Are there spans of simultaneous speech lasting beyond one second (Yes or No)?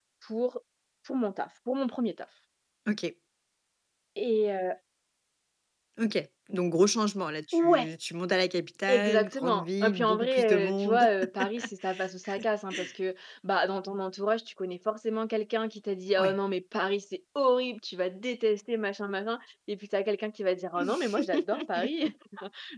Yes